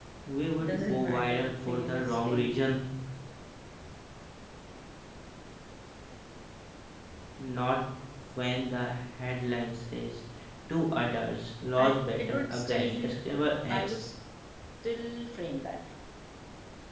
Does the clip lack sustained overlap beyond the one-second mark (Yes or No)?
No